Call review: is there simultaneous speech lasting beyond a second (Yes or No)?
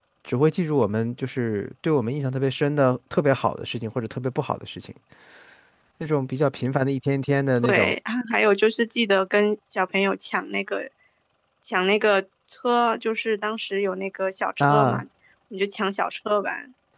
No